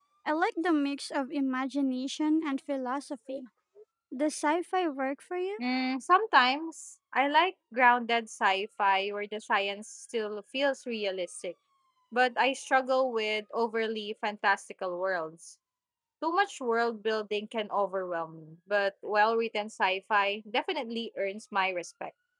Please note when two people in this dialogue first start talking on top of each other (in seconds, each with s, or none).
none